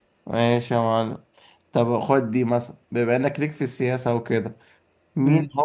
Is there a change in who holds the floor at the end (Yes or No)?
No